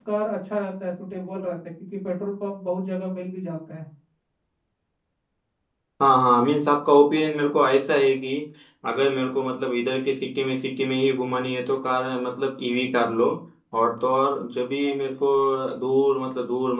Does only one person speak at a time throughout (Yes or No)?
Yes